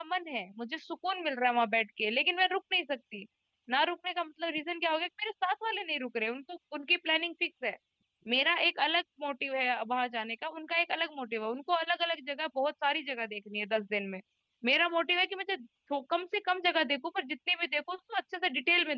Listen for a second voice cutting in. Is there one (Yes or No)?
No